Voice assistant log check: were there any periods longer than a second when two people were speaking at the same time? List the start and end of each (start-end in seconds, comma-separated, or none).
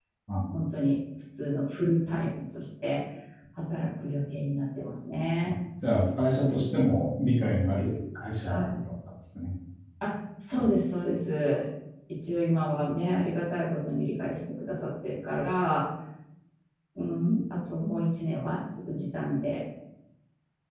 none